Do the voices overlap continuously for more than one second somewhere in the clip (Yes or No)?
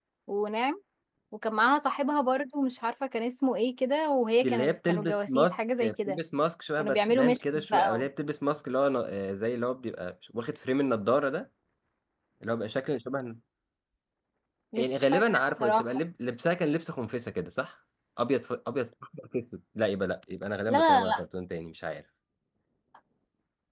Yes